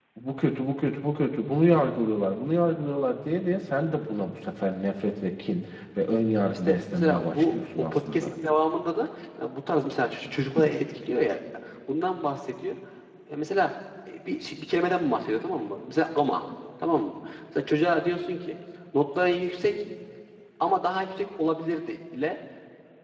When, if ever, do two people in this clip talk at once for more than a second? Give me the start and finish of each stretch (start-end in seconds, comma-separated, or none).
6.5-8.3